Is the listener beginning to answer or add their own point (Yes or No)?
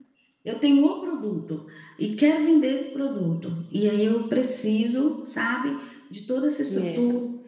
No